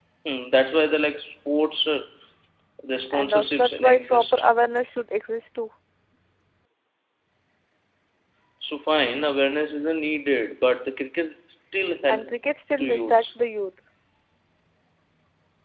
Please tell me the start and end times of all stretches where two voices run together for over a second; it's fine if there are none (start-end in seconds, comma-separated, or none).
3.1-4.4